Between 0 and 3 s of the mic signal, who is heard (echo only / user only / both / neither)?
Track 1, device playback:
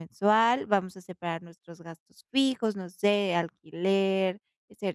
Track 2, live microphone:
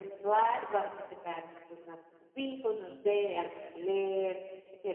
echo only